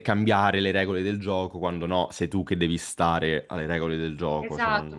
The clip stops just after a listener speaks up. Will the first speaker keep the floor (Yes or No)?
No